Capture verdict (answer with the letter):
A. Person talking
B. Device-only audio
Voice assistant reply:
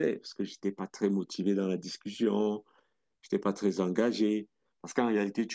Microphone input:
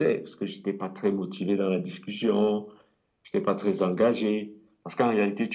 B